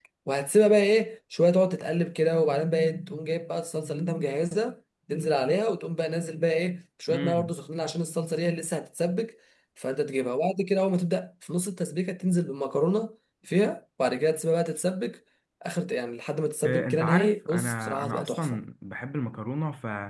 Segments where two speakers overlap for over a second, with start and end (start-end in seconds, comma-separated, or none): 16.6-18.6